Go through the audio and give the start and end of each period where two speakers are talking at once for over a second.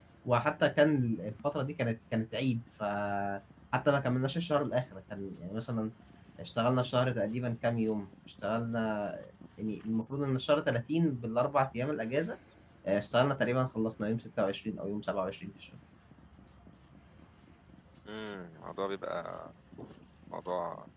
none

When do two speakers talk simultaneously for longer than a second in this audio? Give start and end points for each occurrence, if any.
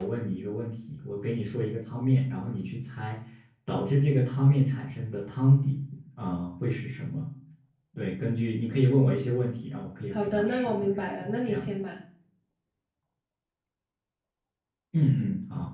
10.1-11.7

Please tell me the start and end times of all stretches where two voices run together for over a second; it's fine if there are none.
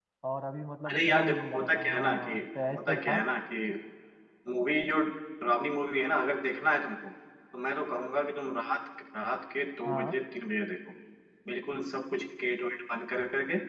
0.9-2.3

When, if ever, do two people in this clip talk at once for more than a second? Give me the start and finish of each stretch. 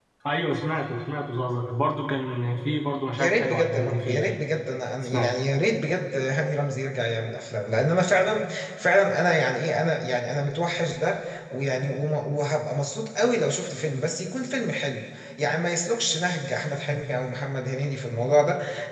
3.1-4.3

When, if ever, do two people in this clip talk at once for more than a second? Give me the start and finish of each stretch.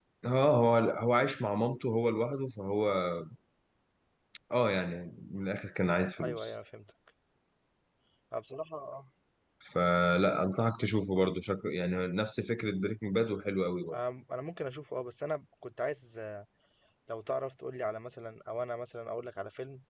none

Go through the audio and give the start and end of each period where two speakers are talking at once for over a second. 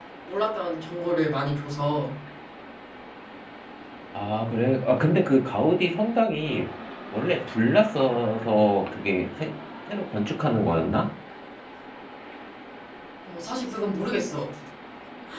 none

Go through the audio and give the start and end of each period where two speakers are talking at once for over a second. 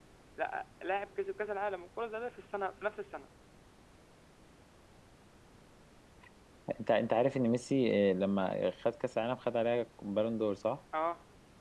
none

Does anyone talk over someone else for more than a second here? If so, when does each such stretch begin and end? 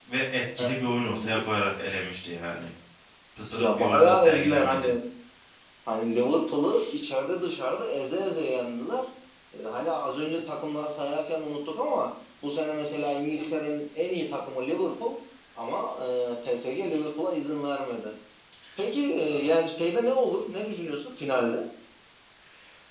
3.6-4.9

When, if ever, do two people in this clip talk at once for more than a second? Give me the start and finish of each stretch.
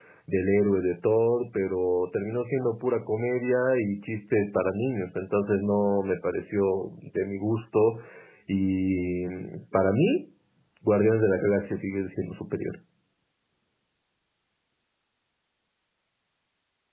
none

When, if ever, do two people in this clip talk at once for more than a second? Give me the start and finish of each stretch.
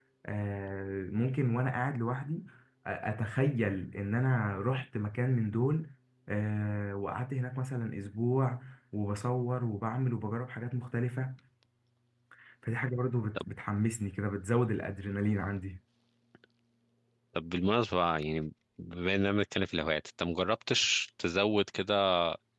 none

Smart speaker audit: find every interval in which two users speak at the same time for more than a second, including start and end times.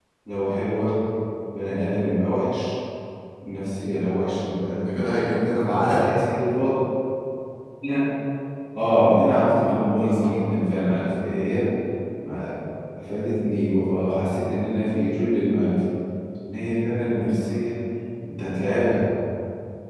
4.8-6.1

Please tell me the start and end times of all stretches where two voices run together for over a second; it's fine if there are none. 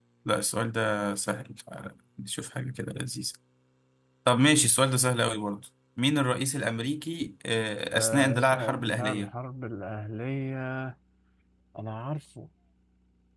7.9-9.3

